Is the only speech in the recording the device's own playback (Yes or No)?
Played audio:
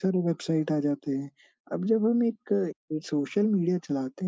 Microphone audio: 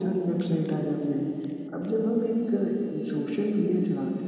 Yes